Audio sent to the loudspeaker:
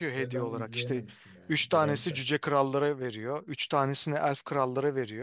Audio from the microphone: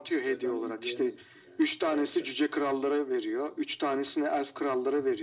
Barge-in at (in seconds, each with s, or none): none